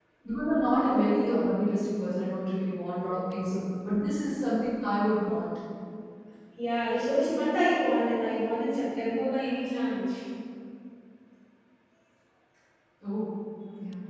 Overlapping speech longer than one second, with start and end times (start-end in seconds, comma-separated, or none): none